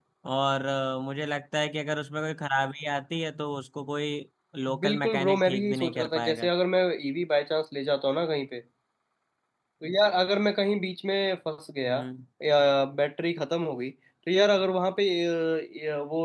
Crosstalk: present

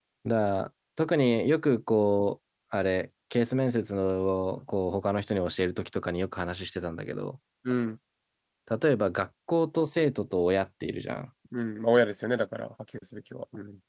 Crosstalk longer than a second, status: none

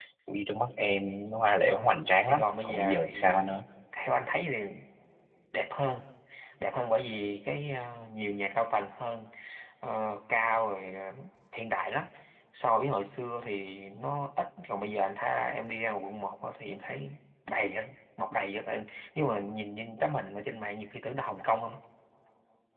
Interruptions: present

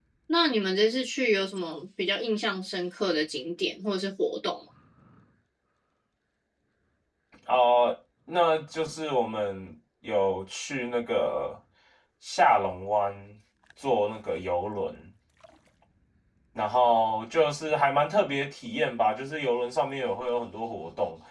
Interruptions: none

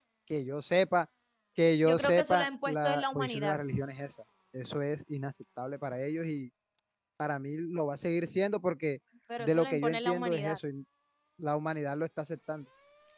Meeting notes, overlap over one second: present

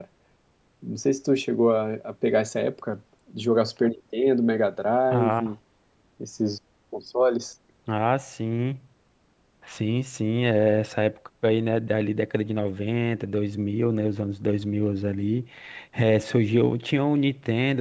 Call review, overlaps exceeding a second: none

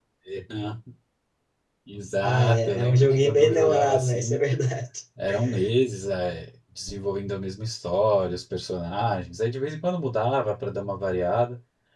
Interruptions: present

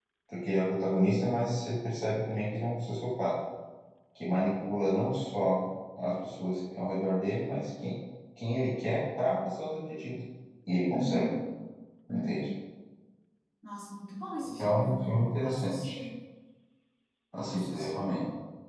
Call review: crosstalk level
present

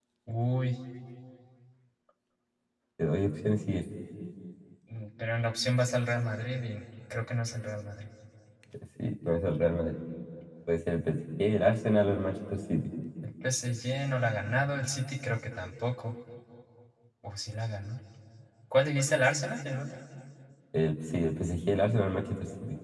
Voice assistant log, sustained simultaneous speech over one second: none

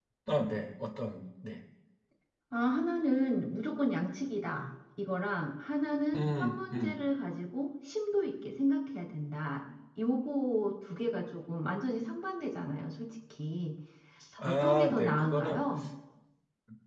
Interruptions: present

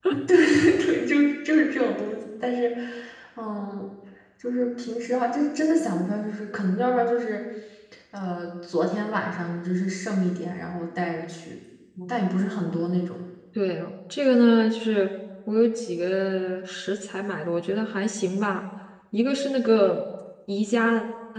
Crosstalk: none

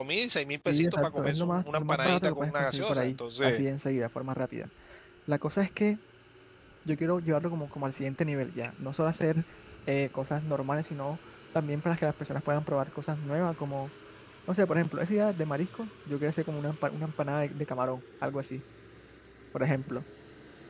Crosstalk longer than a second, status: present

